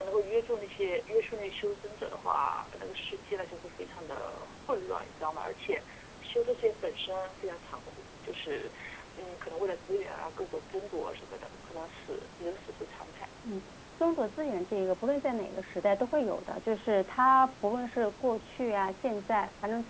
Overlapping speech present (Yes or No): No